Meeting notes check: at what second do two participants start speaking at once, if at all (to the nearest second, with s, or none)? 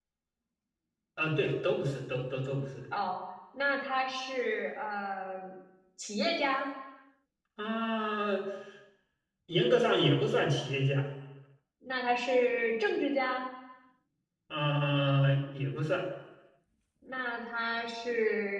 none